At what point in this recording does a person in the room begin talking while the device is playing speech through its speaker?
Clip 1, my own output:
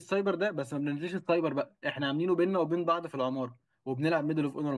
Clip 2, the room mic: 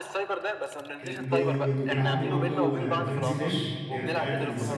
1.0 s

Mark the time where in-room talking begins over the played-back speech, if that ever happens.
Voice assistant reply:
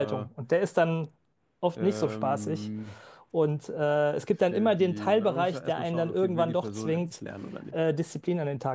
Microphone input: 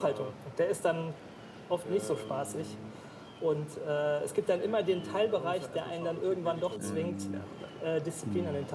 6.8 s

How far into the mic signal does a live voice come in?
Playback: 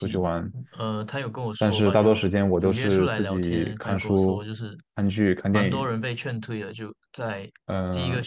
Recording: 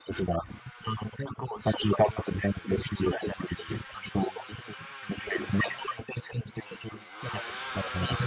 none

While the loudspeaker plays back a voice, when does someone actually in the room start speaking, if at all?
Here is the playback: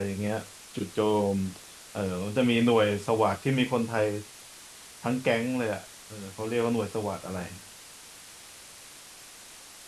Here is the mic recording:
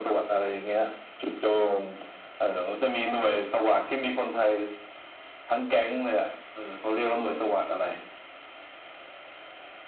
none

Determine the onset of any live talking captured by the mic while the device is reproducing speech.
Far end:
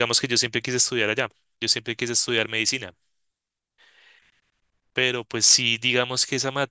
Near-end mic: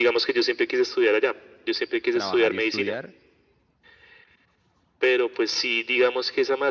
2.1 s

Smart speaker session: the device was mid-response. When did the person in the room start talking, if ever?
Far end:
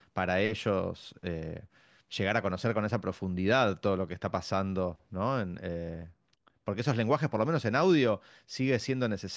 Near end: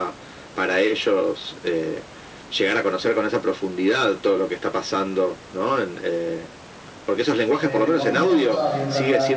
7.6 s

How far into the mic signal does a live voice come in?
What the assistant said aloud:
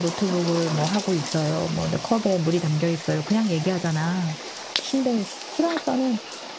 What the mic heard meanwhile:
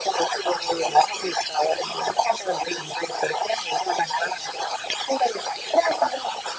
none

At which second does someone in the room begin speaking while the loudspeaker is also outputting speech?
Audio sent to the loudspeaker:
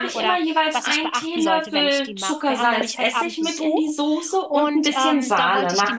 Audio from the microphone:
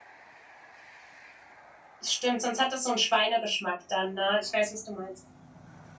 2.0 s

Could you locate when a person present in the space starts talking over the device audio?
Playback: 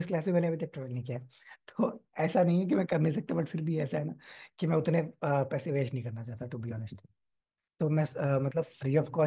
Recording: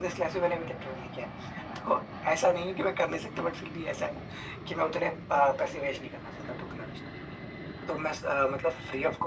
none

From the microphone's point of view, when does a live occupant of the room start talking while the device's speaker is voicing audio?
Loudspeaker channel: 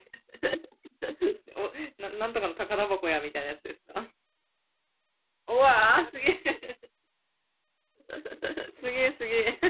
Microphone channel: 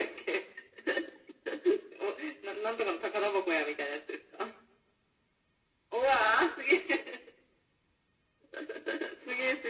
none

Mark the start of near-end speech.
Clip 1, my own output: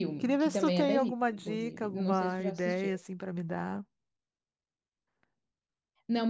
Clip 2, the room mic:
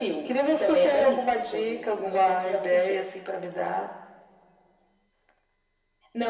none

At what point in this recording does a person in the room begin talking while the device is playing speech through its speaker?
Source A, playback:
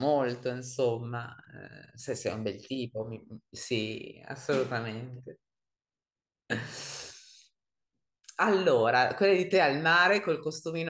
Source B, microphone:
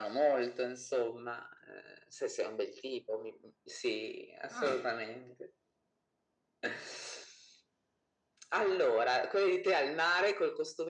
4.5 s

